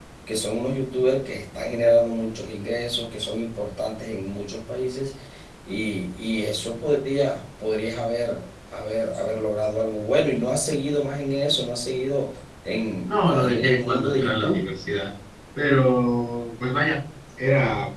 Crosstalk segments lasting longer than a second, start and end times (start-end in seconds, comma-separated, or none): 13.1-14.6